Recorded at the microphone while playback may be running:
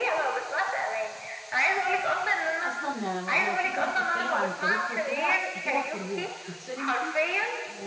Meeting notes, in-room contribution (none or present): present